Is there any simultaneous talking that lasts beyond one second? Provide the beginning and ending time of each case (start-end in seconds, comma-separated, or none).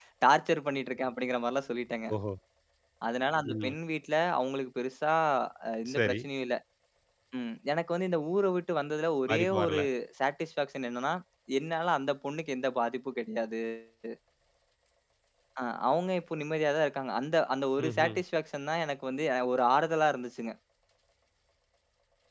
none